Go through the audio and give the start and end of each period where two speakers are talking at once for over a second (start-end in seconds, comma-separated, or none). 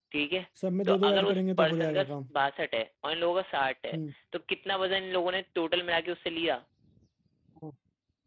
0.9-2.1